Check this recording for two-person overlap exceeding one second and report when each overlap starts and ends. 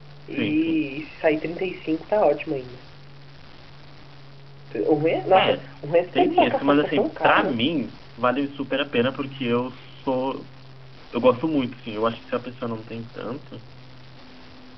6.1-7.5

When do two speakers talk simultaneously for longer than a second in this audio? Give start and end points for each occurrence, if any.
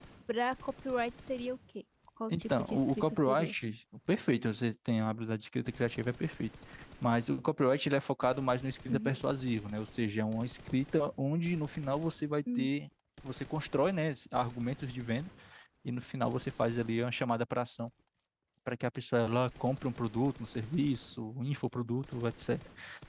2.3-3.5

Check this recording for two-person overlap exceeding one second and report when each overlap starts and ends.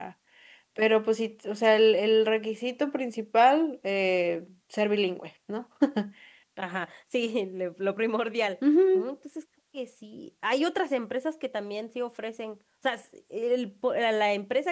none

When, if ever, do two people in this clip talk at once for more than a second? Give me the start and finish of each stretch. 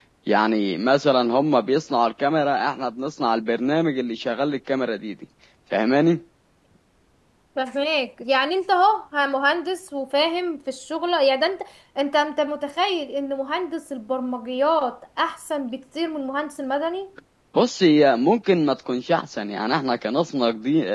none

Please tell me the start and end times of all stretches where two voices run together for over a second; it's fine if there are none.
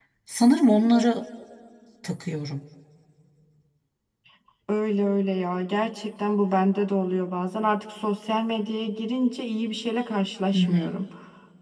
none

